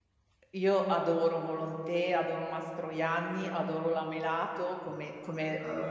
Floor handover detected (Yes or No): No